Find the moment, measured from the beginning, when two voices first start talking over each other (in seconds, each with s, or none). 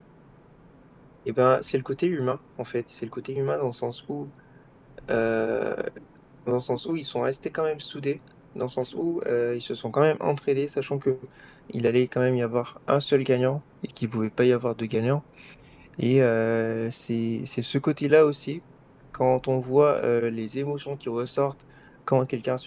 none